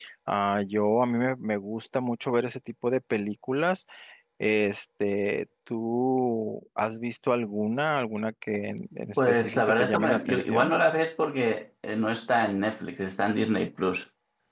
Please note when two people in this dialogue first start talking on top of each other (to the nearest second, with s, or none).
9 s